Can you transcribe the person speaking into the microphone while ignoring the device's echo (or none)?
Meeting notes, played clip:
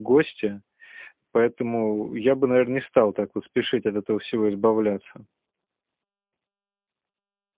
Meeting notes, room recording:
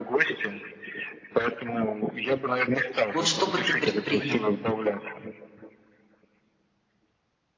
Вот что бы ты предпринял?